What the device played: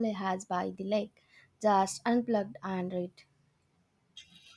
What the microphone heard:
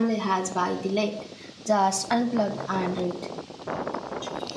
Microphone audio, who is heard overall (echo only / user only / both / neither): echo only